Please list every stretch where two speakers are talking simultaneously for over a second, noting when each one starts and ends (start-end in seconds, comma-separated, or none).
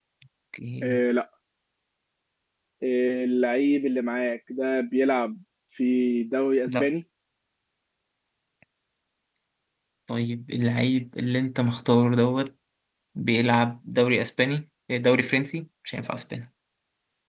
none